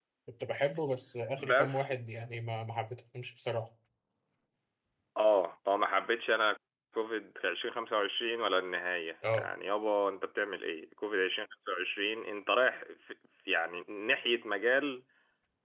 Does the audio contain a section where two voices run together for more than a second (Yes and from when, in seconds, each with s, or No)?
No